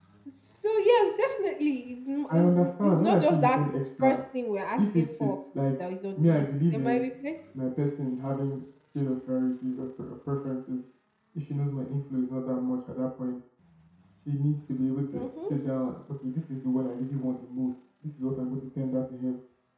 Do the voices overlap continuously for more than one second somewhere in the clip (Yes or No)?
Yes